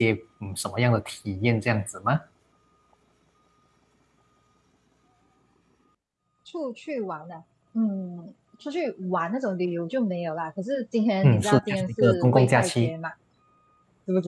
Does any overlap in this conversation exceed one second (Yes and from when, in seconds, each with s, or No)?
Yes, from 11.2 s